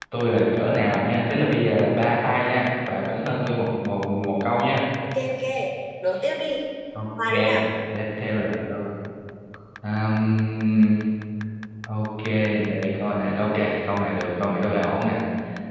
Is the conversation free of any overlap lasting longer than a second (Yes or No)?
Yes